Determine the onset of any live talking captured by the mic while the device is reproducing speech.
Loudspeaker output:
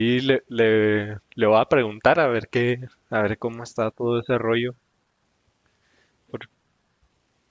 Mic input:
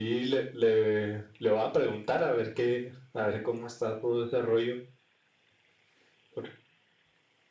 none

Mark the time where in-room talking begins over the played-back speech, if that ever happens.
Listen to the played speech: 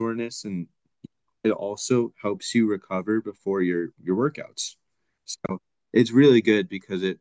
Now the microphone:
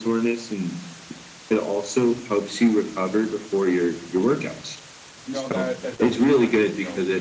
5 s

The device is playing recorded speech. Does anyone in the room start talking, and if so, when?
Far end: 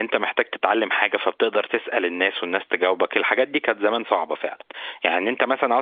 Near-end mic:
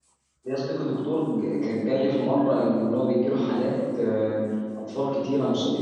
0 s

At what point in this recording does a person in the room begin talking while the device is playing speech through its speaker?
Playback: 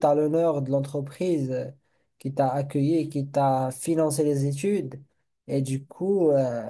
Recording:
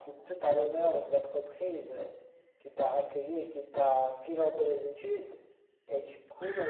none

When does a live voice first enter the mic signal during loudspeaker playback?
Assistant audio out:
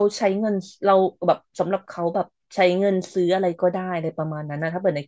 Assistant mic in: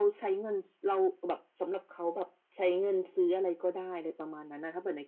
none

